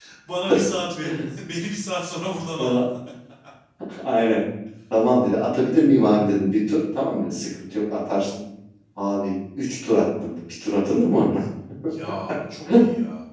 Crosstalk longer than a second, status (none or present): none